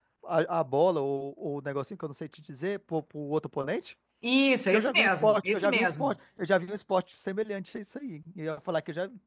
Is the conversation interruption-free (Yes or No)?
No